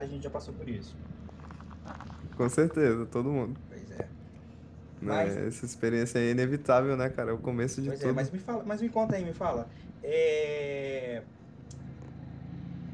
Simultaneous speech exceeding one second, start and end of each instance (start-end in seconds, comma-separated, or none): none